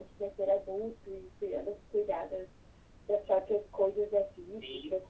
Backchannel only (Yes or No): No